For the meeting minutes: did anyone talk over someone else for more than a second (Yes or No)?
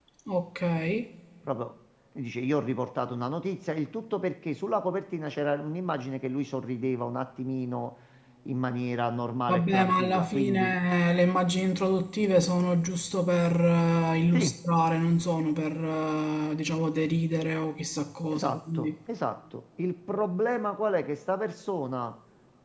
Yes